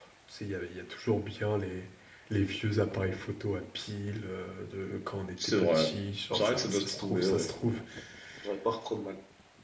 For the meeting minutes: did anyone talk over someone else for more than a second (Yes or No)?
Yes